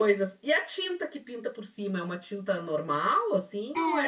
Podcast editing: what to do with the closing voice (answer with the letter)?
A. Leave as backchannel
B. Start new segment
B